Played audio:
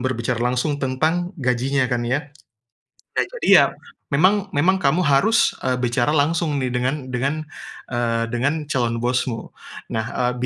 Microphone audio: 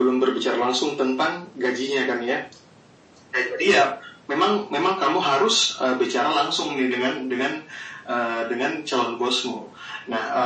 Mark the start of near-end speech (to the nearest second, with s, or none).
none